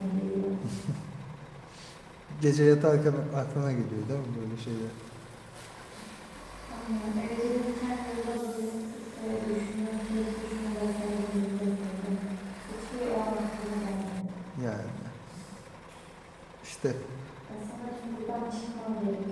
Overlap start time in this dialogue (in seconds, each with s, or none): none